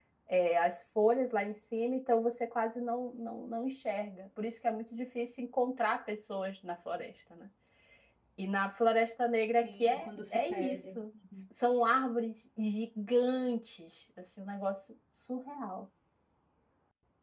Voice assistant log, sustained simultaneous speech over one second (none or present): present